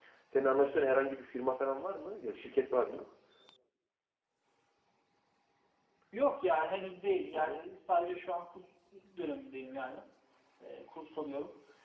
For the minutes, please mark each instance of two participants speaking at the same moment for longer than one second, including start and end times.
none

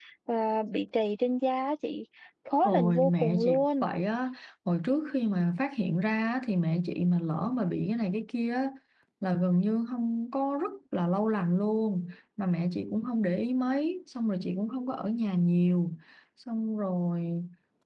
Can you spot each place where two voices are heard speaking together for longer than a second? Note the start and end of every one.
2.6-3.9

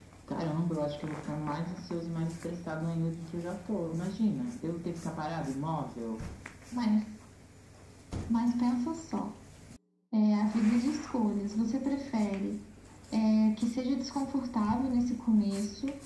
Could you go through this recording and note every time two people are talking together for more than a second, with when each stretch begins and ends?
none

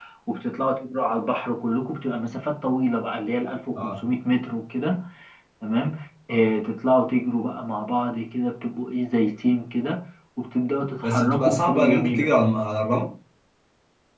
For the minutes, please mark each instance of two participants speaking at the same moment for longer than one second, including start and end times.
11.0-12.3

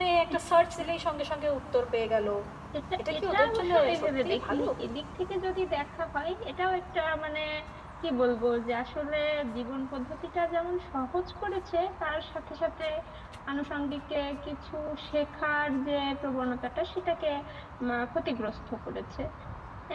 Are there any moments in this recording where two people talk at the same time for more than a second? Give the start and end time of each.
3.1-4.6

